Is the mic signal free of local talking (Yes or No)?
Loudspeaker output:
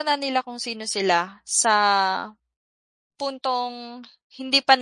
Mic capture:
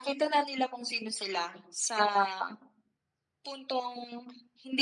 Yes